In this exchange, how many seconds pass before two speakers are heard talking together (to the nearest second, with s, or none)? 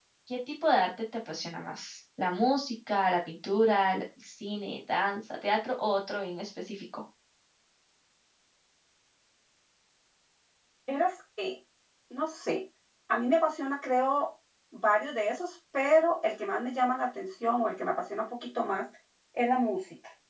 none